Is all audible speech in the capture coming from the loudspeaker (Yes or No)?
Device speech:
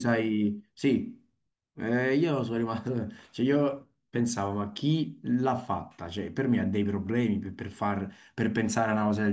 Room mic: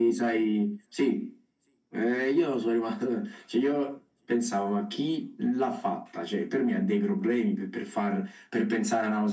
Yes